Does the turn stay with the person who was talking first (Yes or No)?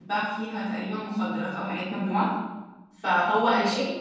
Yes